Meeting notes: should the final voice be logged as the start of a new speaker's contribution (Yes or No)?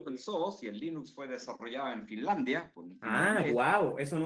Yes